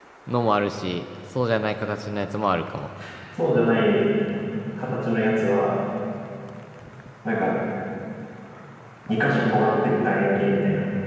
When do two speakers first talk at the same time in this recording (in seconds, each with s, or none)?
none